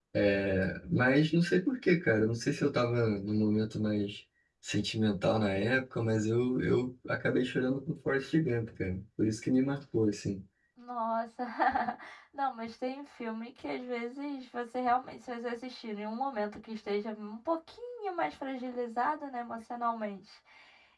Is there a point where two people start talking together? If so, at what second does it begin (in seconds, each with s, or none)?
none